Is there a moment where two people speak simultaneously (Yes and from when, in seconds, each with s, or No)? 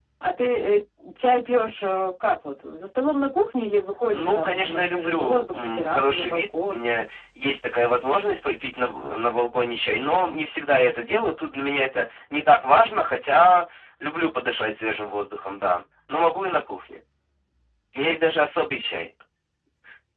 Yes, from 4.1 s